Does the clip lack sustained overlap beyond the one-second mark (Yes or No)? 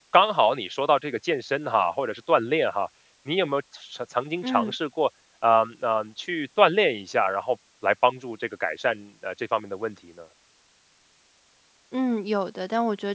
Yes